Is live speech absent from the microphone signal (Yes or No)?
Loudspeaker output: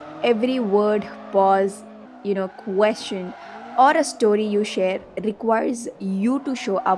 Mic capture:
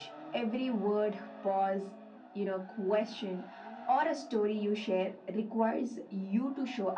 Yes